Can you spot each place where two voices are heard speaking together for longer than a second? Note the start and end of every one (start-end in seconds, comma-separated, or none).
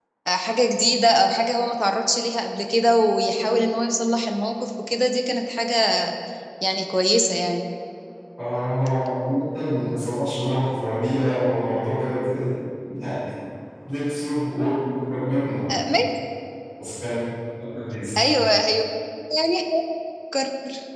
none